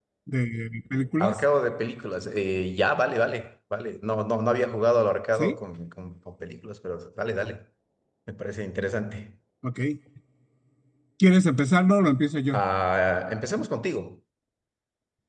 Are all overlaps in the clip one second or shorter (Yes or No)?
Yes